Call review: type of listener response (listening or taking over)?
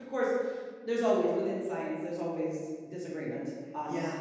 taking over